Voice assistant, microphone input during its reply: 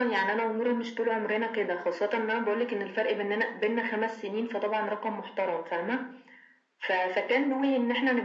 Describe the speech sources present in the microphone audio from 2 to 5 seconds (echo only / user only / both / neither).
echo only